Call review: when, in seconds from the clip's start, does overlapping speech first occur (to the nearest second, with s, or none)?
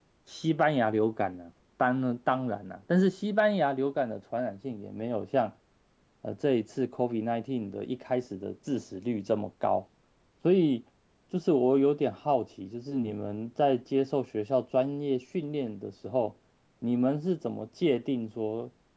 none